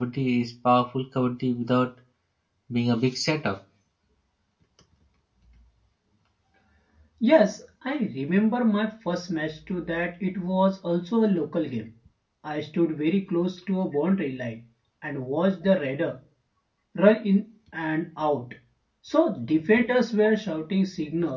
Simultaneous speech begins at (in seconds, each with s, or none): none